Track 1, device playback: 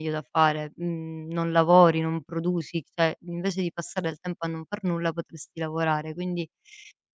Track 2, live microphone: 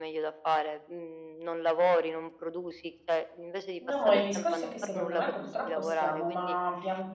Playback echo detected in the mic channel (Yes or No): Yes